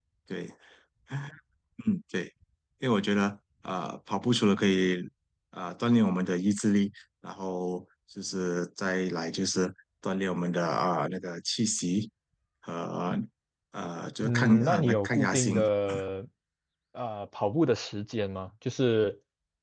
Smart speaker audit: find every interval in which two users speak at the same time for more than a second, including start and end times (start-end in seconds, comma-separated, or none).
14.2-15.6